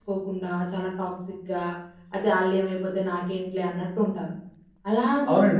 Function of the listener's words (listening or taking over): taking over